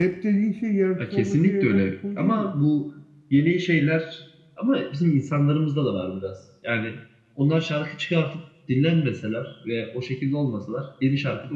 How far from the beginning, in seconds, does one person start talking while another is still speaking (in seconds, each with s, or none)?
1.0 s